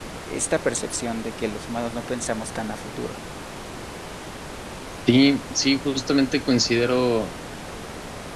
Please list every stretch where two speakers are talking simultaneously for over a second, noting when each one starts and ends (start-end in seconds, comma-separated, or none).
none